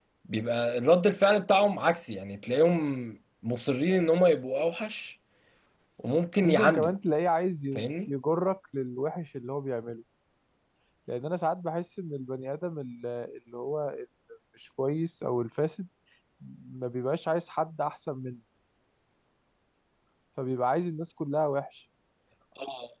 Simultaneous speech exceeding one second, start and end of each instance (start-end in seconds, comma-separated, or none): none